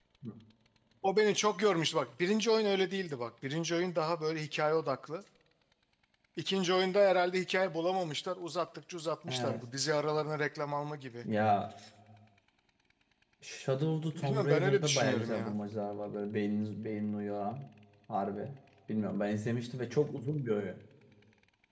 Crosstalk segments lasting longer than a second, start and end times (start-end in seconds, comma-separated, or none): 14.1-15.6